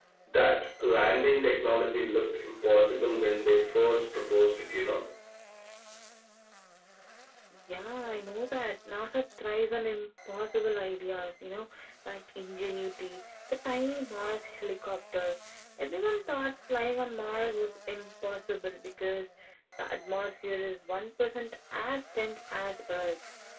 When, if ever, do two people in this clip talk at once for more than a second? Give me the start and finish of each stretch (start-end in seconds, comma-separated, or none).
none